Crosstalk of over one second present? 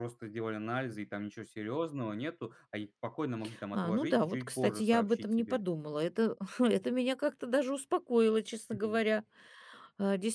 Yes, from 3.7 s

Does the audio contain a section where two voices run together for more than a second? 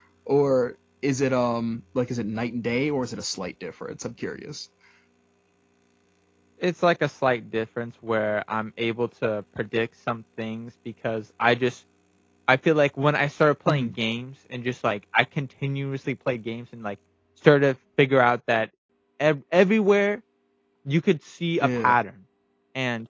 No

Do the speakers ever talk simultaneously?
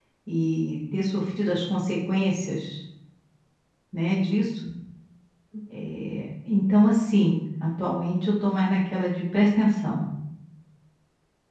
No

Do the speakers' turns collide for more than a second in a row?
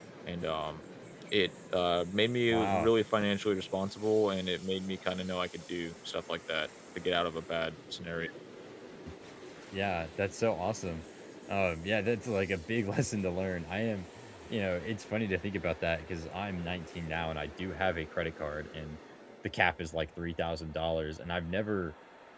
No

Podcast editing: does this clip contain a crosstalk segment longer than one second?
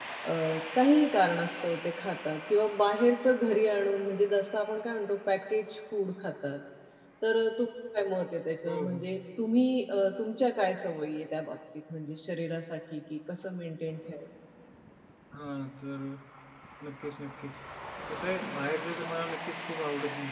No

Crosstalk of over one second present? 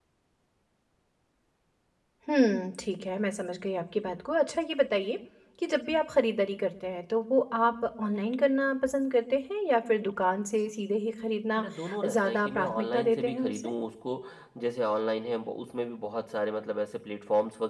Yes, from 12.0 s

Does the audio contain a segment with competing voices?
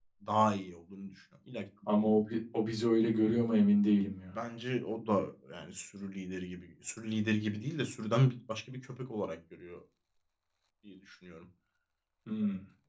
No

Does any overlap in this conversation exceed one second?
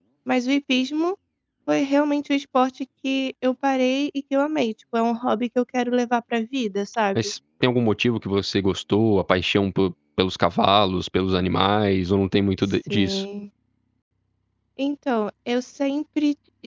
No

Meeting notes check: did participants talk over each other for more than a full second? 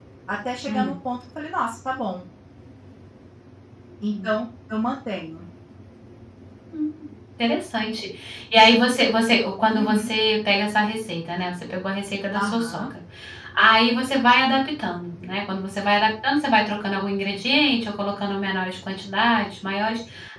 No

